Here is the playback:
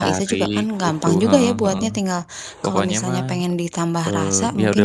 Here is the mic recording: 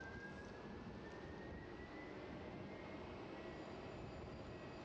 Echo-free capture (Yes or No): Yes